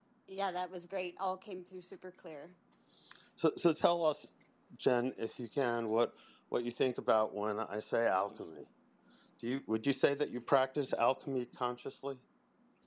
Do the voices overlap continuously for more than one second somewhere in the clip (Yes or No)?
No